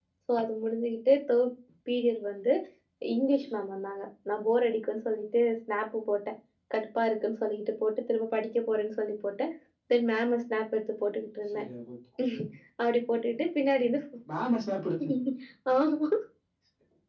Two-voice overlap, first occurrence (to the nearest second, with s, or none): none